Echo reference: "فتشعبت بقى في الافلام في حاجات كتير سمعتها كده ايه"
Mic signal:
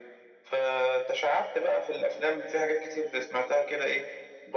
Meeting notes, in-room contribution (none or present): none